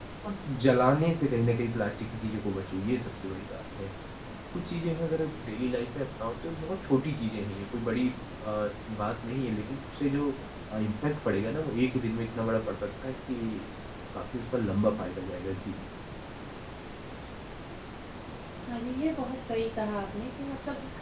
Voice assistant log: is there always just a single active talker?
Yes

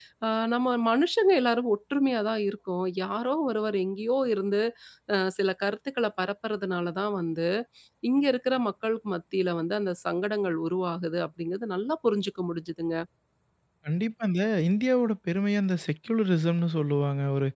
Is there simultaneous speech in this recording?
No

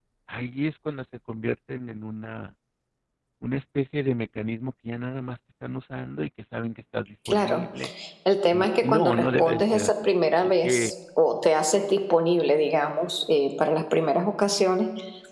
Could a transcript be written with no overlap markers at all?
No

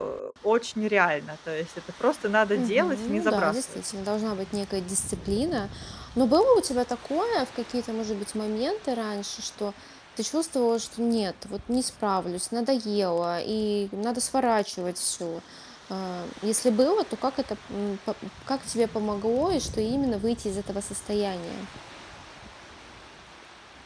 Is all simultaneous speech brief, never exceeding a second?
No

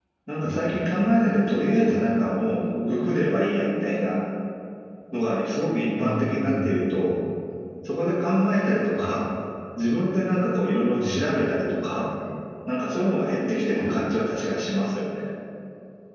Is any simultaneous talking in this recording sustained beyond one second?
Yes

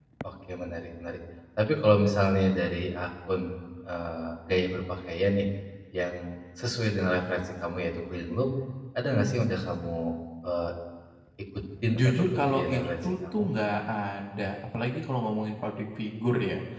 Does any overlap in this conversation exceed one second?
Yes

